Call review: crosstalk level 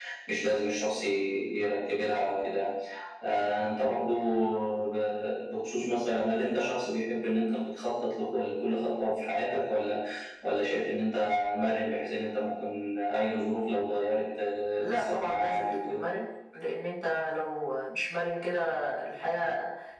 present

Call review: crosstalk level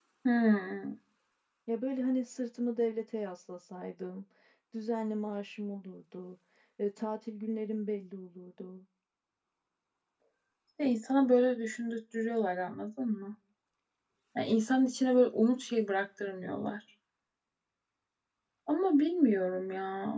none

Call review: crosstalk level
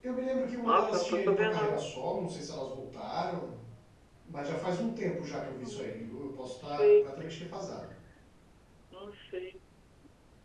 present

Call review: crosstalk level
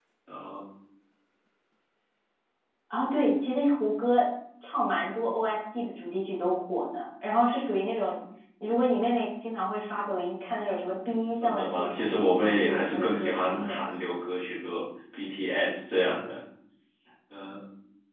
present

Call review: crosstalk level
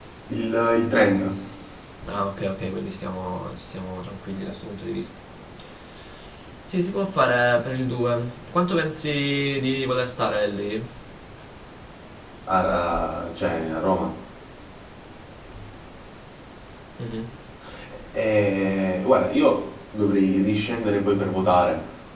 none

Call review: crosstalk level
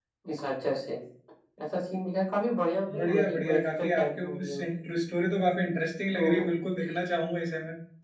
present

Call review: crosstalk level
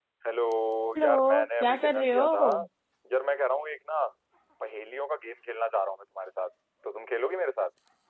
present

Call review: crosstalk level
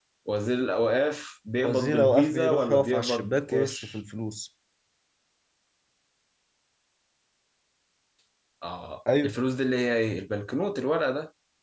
present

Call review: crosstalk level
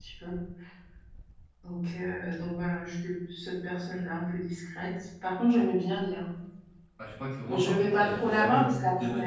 present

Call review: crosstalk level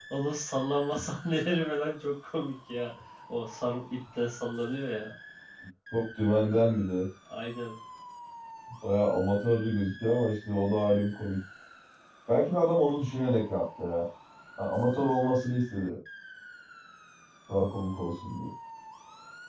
none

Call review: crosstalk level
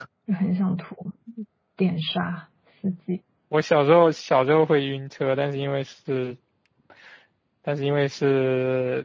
none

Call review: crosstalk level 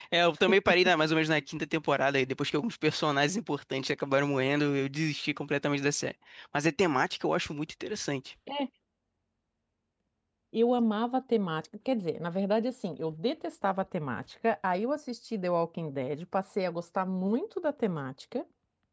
none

